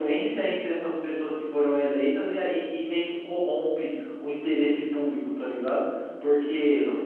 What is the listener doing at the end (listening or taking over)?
listening